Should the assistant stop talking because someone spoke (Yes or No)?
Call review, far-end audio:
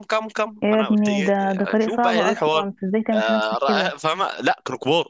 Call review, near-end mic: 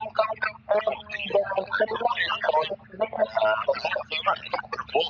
No